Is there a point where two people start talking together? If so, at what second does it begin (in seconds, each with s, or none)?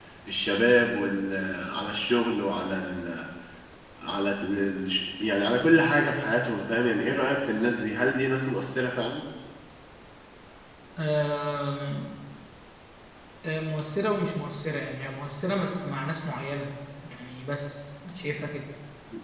none